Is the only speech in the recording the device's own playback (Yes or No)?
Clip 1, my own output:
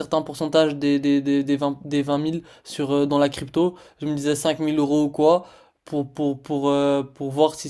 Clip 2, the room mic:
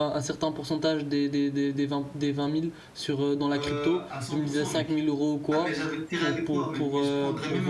No